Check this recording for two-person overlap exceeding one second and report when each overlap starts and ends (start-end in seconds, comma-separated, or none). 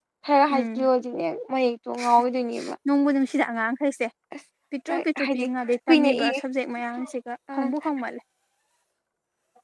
none